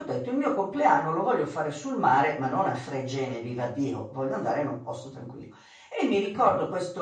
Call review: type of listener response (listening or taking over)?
listening